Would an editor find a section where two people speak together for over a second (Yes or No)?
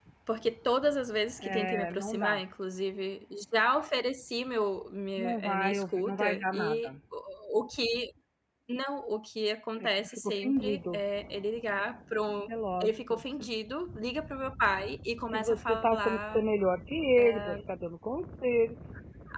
Yes